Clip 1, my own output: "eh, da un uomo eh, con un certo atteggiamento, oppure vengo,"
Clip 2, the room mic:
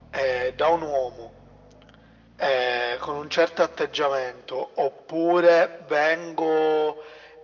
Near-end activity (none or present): none